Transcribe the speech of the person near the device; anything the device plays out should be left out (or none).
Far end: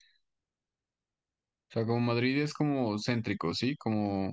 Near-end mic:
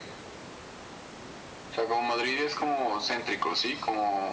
none